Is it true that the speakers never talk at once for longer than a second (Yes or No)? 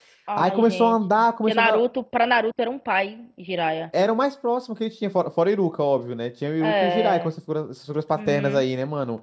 No